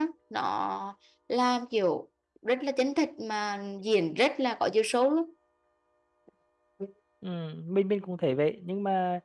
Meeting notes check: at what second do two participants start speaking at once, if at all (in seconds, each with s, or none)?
none